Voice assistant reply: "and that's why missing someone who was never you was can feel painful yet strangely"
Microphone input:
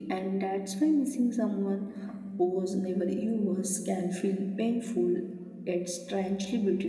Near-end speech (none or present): none